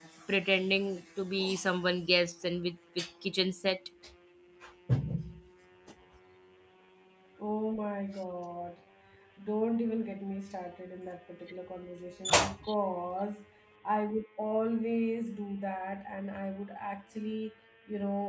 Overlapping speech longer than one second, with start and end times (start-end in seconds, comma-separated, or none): none